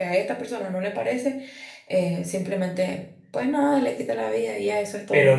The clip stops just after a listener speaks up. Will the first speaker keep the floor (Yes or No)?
No